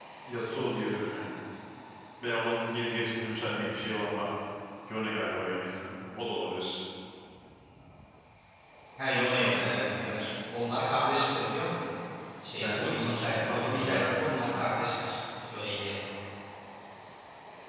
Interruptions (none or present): present